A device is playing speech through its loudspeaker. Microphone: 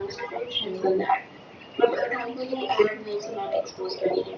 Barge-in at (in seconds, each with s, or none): 0.6 s